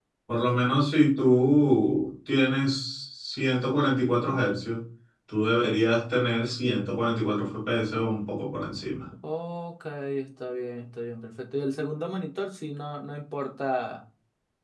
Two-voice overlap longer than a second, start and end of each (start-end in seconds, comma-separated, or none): none